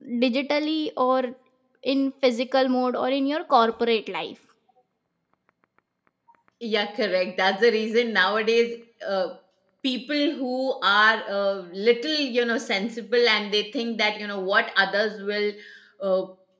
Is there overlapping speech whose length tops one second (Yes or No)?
No